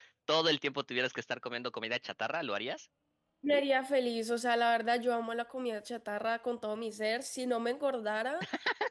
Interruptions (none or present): none